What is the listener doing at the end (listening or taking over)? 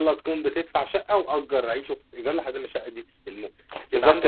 taking over